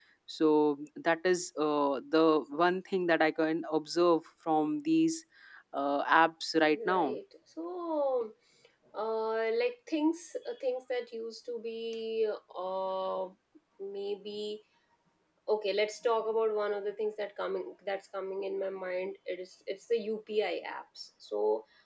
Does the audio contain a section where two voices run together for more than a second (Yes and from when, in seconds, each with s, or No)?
No